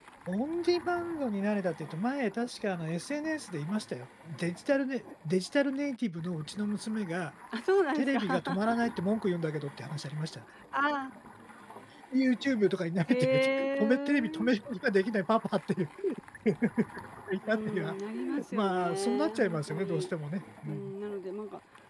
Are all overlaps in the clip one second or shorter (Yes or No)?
No